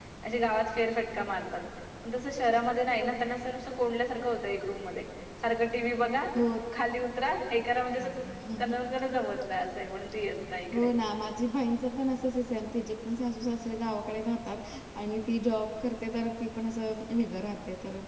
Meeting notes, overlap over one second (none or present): none